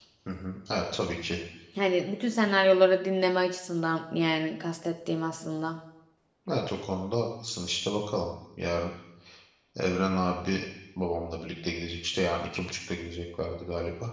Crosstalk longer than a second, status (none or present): none